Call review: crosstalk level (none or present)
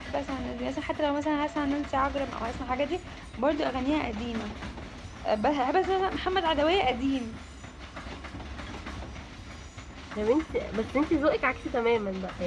none